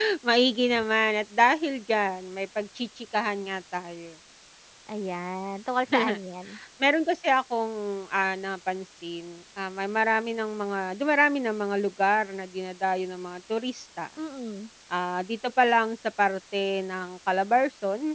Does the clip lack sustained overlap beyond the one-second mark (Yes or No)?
Yes